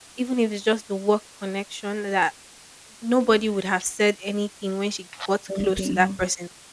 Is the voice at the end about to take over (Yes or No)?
No